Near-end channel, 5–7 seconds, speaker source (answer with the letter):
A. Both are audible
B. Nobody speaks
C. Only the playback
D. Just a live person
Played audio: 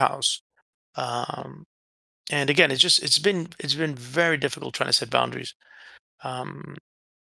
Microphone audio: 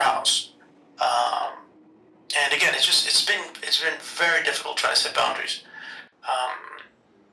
C